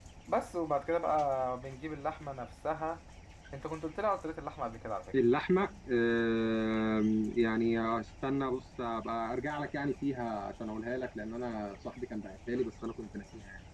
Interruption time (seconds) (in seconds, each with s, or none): none